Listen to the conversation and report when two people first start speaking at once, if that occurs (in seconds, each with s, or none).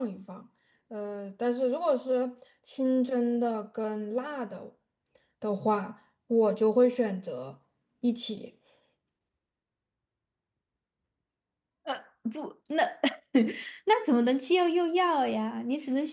none